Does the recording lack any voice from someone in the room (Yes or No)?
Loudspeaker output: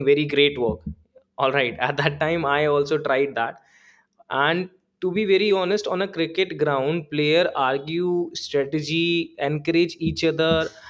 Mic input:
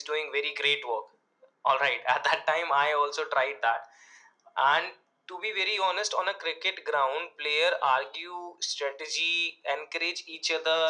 Yes